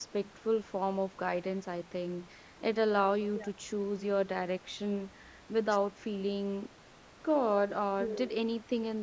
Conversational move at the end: listening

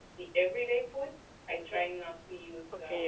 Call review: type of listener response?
taking over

